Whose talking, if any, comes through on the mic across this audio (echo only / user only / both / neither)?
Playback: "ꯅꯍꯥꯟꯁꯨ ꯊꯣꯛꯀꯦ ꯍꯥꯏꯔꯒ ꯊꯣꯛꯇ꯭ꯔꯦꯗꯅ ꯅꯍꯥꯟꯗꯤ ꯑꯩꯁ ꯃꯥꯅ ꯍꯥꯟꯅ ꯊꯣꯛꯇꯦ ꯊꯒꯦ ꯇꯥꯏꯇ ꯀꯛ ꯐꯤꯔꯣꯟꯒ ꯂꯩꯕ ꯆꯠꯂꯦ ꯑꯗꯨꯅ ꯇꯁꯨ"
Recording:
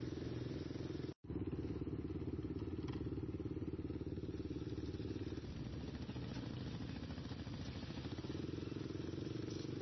neither